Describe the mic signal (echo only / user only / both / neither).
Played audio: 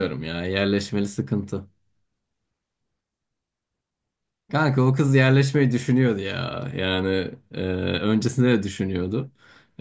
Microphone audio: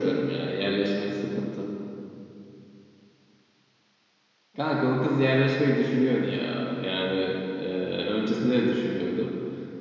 echo only